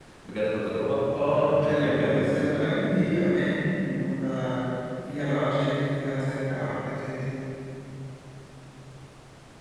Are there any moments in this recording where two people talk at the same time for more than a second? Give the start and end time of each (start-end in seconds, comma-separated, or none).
1.2-2.4